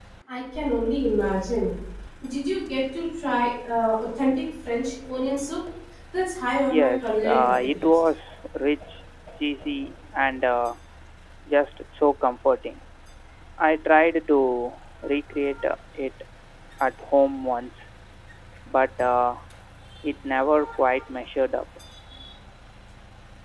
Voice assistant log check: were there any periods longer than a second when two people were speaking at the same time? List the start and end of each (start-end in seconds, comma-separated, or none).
6.7-8.0